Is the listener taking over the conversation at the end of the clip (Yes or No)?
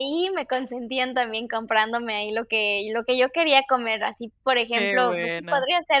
No